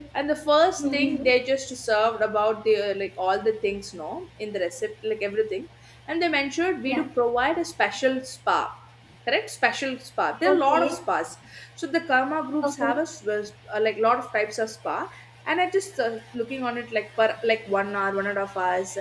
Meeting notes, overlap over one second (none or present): none